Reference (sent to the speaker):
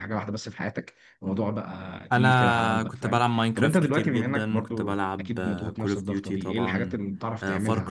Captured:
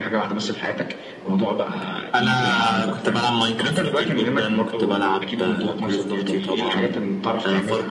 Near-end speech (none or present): none